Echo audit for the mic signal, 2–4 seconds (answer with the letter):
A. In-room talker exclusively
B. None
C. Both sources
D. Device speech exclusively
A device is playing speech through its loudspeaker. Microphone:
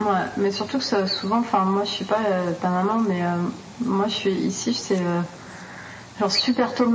D